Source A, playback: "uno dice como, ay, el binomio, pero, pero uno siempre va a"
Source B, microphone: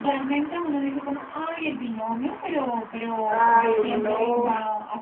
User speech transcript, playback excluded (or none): Ay, no.